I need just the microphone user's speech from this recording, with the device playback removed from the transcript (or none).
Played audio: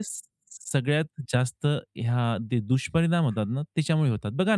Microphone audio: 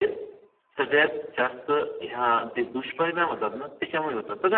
none